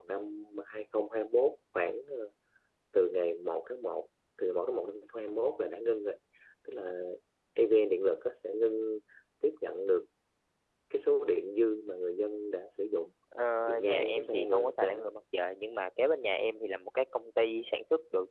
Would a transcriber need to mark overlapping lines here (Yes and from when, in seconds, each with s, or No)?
Yes, from 13.8 s